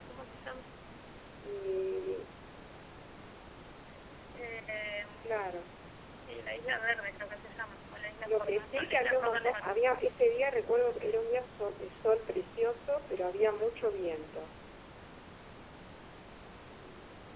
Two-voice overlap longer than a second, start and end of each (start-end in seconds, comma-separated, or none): 8.2-9.7